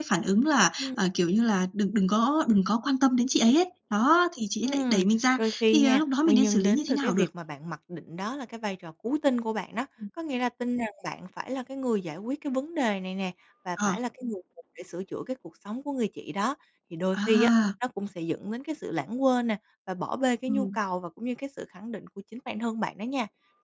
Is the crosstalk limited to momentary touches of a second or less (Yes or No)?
No